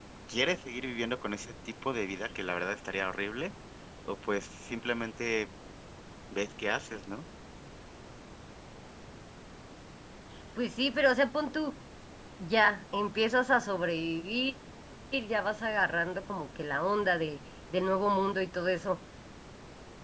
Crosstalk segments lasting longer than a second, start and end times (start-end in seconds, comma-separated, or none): none